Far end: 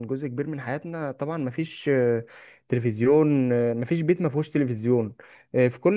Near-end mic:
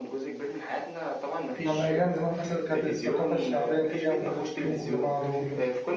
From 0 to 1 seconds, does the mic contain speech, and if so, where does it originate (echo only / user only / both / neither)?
echo only